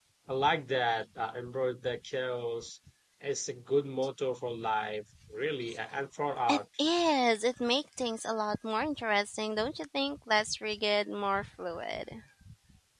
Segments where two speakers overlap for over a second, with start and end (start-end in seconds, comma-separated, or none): none